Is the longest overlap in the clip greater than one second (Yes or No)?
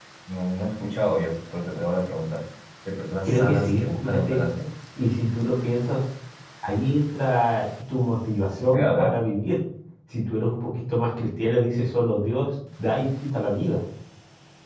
Yes